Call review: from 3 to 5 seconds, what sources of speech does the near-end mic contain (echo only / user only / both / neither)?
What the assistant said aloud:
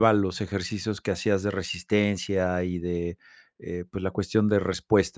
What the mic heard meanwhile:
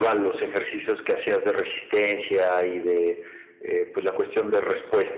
echo only